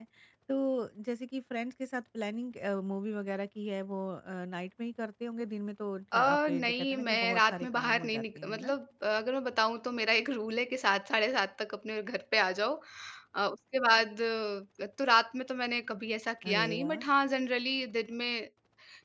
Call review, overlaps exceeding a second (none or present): present